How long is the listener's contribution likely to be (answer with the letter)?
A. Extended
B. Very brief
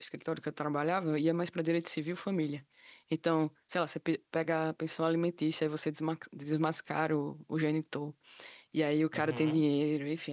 B